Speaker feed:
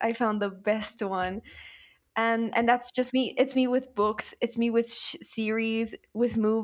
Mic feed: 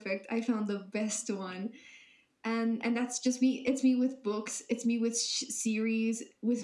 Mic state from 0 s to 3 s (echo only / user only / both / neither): echo only